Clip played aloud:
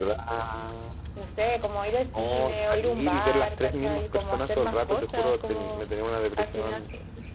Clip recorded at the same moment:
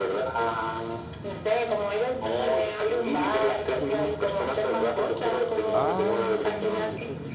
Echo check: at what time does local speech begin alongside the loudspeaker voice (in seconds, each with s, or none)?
5.7 s